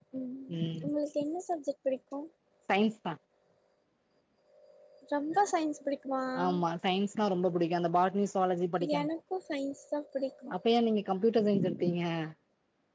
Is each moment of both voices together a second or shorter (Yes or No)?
Yes